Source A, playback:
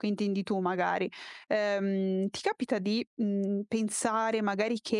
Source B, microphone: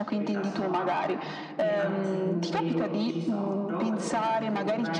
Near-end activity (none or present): present